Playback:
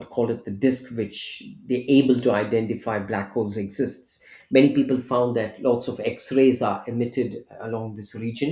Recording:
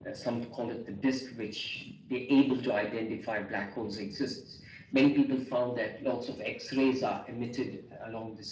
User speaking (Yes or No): No